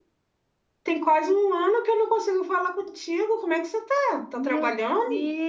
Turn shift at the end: Yes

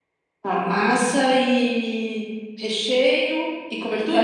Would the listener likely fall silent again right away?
No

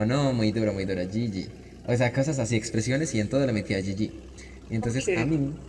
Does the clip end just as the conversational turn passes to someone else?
No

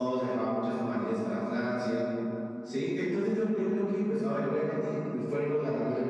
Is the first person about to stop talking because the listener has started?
Yes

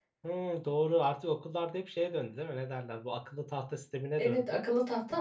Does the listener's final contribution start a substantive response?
Yes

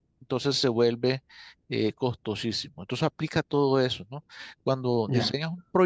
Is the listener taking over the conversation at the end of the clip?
No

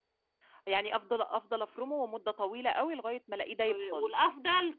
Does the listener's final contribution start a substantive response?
Yes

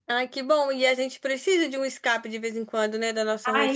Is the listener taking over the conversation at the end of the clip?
Yes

